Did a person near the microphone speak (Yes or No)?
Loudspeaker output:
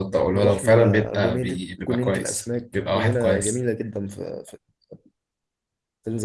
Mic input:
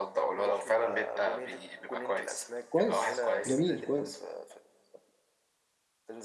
Yes